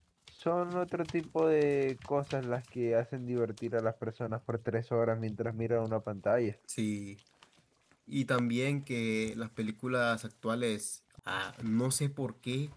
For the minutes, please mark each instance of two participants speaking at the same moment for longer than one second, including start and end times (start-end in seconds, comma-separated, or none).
none